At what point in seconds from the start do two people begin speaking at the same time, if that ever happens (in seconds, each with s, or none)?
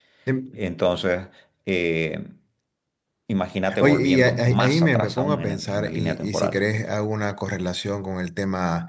3.8 s